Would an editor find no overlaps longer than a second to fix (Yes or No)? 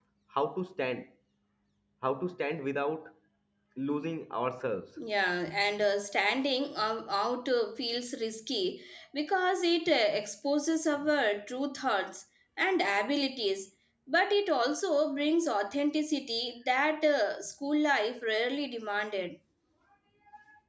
Yes